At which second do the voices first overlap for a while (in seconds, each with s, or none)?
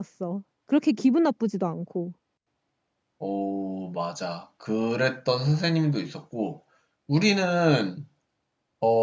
none